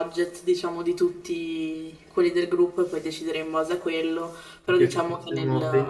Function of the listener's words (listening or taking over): taking over